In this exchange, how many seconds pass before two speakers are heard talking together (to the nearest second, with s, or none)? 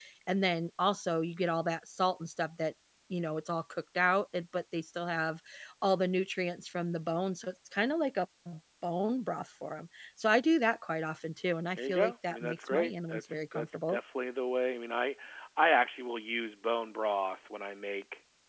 12 s